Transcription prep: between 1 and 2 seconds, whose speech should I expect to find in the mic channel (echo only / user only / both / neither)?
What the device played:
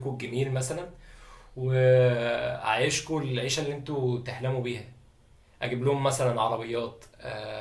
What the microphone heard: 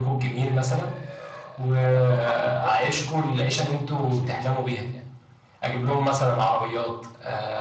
both